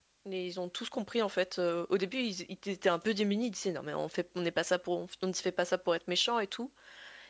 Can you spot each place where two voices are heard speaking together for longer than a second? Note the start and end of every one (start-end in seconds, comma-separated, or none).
none